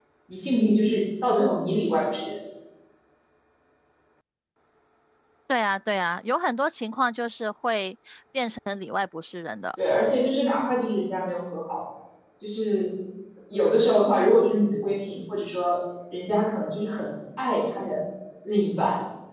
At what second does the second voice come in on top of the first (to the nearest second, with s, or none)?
none